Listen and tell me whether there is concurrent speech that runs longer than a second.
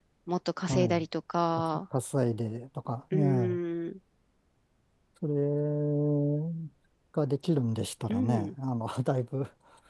No

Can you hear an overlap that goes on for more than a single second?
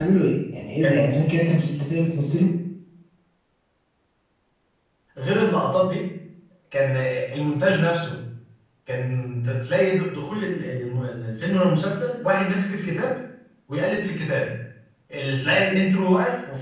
No

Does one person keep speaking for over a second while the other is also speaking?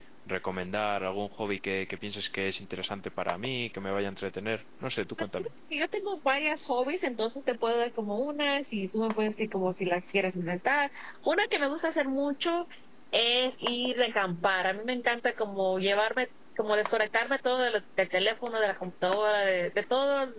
No

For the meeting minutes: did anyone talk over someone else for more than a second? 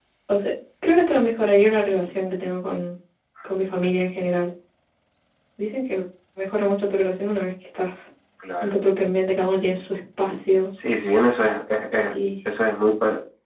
No

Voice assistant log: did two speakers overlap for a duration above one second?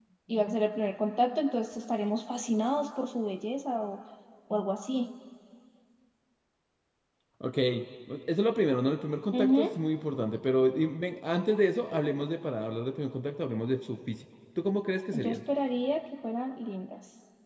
No

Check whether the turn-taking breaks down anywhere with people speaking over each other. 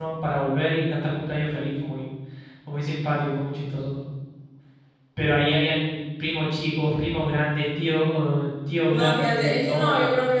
Yes, from 8.9 s

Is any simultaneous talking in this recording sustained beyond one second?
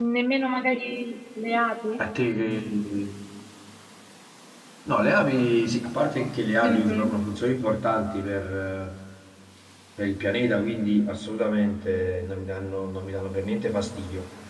No

